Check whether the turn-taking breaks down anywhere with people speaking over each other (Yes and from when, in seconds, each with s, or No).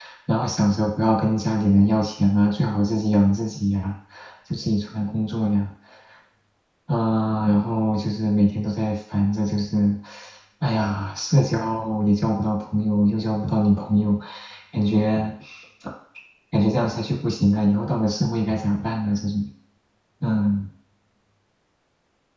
No